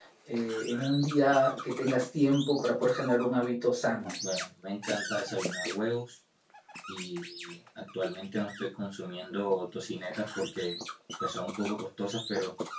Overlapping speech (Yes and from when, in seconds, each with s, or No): No